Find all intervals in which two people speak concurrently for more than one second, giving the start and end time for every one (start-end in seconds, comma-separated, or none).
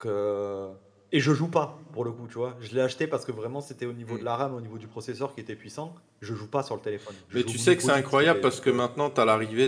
7.3-8.8